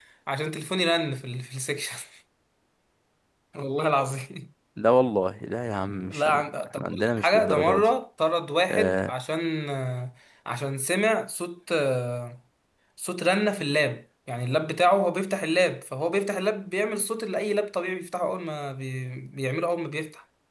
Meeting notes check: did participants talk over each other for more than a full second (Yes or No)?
Yes